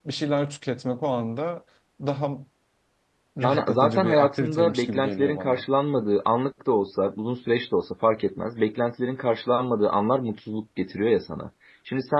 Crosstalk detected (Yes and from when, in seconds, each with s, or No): Yes, from 3.4 s